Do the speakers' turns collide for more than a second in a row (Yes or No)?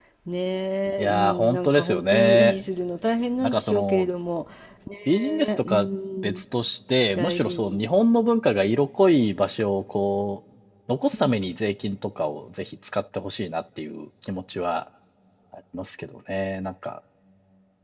Yes